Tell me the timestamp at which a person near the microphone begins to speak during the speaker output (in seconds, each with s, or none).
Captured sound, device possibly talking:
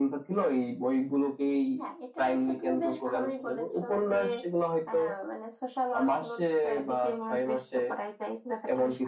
none